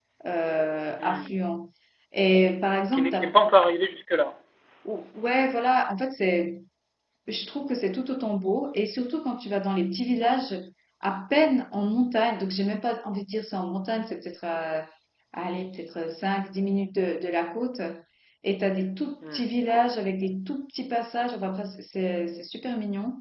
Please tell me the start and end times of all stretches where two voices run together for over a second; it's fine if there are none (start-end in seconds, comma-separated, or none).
none